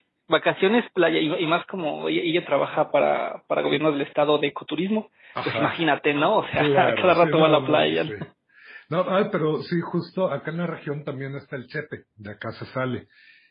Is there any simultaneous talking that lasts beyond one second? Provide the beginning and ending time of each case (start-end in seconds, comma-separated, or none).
6.6-8.1